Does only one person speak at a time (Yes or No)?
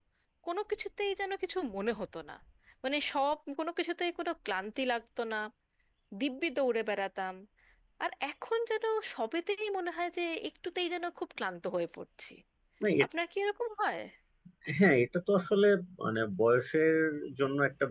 Yes